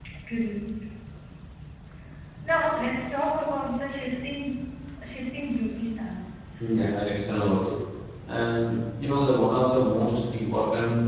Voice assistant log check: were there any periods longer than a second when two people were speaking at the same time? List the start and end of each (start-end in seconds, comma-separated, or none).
none